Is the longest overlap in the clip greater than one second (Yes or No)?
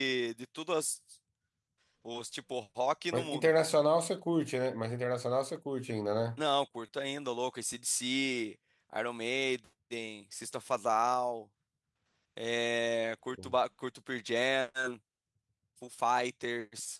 No